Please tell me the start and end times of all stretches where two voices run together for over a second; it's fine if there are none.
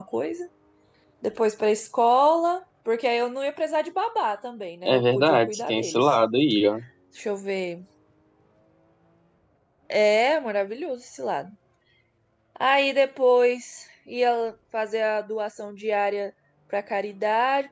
4.8-6.2

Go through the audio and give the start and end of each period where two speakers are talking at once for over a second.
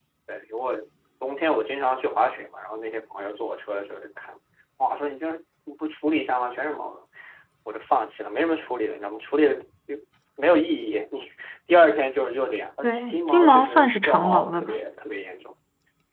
12.8-14.8

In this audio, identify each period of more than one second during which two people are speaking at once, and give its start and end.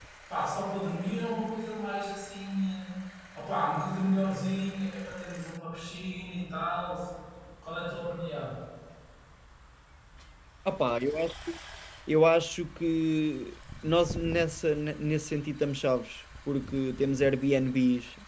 none

